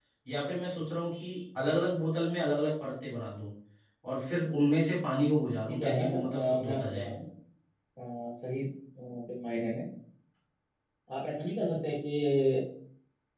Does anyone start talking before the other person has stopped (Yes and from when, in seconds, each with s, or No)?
Yes, from 5.6 s